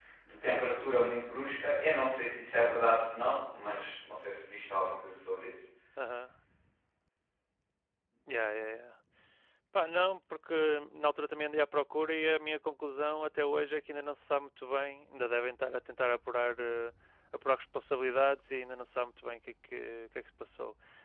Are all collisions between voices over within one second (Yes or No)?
Yes